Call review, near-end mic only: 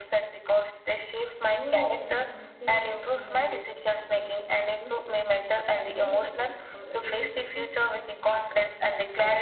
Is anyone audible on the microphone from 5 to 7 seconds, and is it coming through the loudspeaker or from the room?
both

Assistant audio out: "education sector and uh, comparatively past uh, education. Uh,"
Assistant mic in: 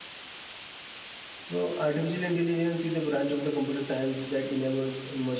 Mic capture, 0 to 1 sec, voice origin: neither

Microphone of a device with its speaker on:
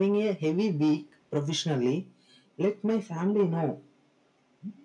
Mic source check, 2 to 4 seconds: echo only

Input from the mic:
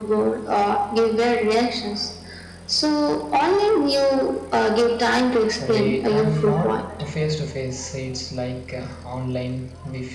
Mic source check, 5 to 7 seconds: both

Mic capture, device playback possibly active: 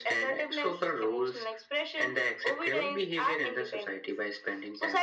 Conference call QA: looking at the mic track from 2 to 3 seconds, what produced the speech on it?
echo only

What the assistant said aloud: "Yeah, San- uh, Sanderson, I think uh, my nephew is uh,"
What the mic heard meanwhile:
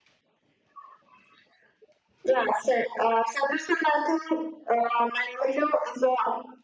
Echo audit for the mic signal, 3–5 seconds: echo only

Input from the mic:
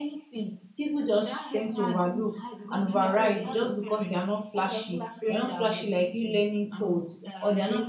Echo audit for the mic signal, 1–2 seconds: both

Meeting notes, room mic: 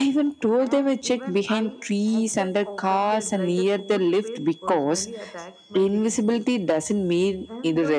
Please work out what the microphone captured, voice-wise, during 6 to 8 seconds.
both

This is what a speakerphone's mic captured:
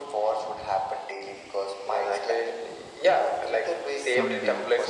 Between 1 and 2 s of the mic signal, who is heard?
echo only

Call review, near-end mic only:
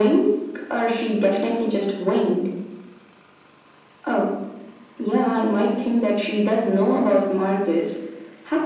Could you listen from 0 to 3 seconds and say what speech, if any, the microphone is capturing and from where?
echo only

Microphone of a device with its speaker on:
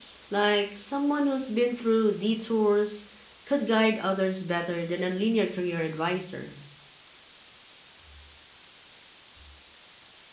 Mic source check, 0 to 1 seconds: user only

